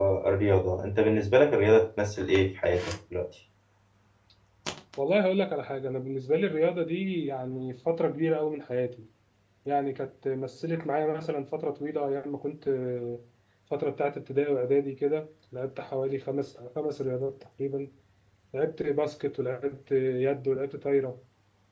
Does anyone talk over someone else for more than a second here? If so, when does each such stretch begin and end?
none

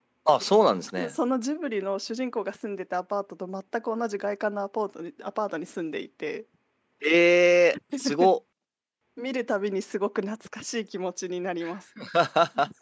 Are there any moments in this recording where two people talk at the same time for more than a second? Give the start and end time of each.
none

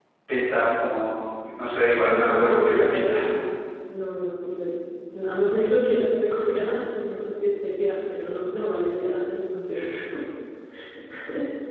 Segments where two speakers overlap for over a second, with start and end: 2.0-3.3

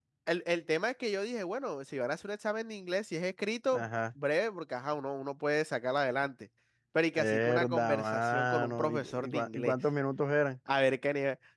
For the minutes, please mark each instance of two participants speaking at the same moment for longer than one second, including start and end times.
7.2-9.7

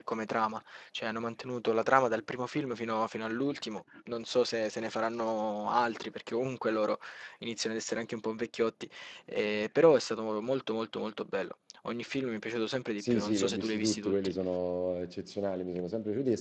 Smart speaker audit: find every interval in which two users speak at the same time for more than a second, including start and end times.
13.0-14.3

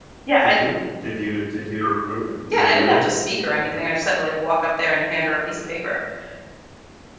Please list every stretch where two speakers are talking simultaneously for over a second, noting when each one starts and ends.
none

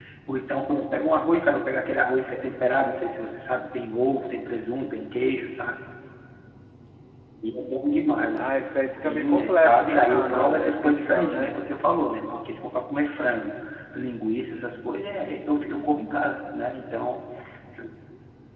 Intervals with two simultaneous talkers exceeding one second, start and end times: 9.0-11.5

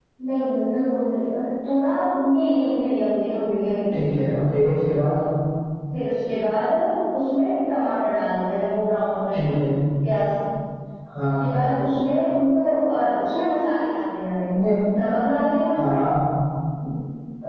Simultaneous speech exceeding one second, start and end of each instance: none

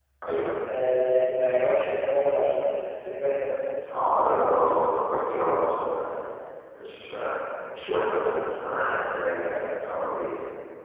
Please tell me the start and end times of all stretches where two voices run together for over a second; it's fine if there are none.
none

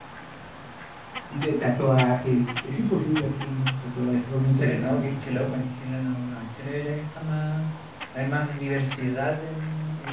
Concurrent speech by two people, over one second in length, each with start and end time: 4.4-5.6

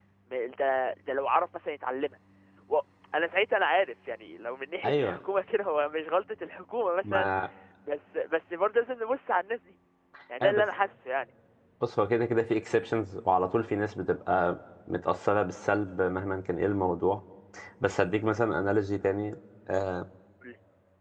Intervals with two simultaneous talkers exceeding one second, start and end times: none

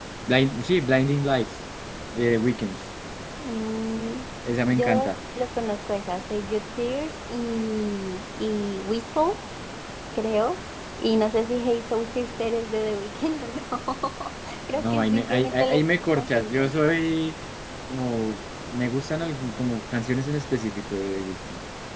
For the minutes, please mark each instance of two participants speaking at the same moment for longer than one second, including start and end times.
14.7-16.7

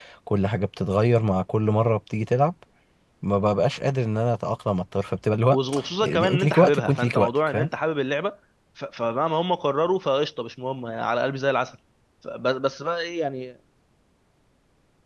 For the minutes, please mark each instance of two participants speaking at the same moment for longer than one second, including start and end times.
6.0-7.7

